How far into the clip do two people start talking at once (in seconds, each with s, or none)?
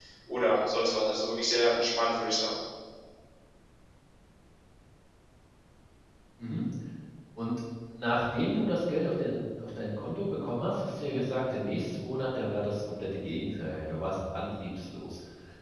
none